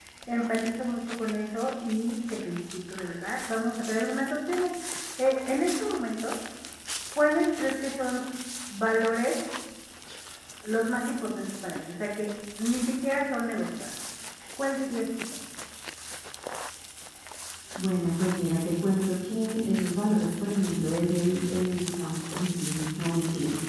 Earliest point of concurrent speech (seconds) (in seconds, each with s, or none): none